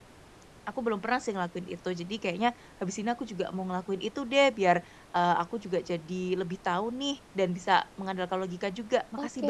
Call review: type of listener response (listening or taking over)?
taking over